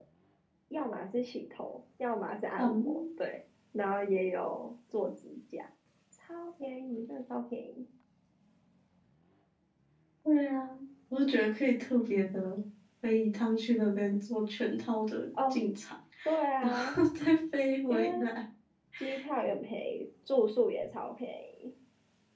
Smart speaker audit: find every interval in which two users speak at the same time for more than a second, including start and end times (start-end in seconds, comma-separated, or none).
none